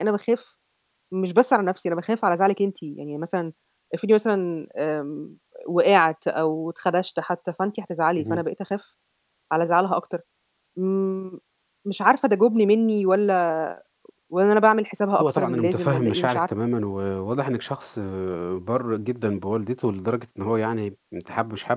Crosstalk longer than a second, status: present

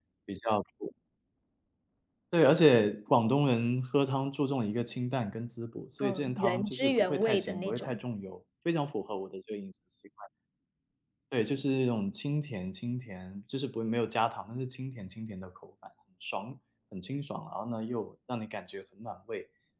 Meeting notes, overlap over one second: present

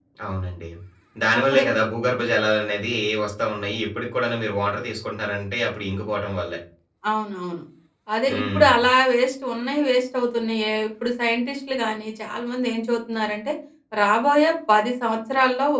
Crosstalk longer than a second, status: none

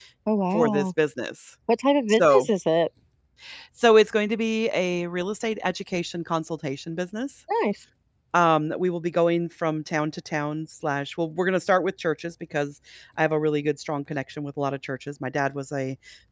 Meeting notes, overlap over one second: none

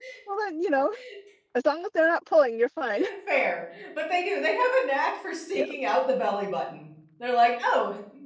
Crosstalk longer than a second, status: none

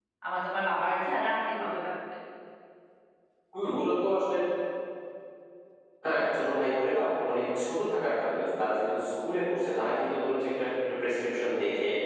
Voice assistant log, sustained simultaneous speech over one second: none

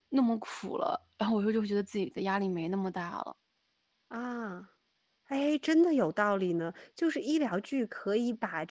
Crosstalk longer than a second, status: none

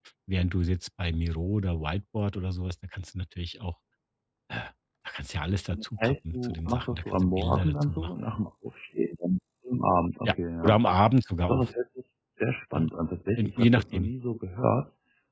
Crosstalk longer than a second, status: present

